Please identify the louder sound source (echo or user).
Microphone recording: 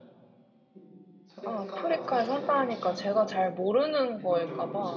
user